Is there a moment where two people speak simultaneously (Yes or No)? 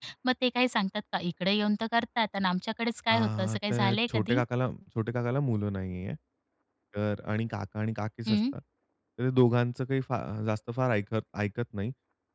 Yes